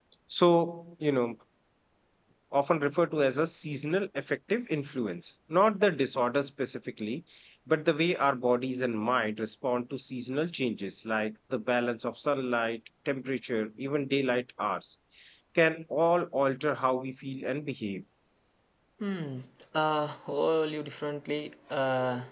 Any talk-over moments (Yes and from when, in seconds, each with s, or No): No